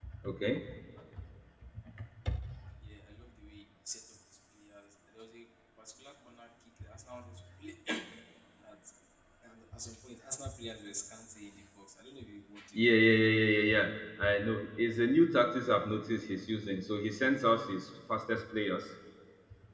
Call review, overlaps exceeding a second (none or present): none